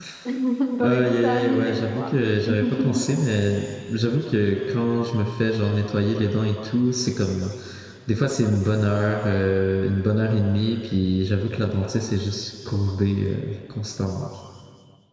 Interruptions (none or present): present